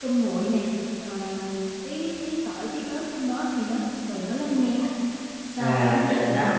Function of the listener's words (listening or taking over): taking over